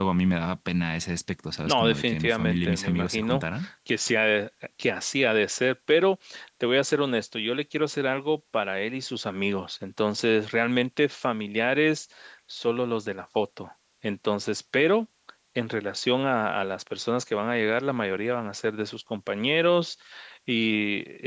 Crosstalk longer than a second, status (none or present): present